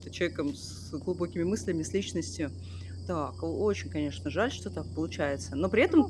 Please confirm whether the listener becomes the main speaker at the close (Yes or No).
No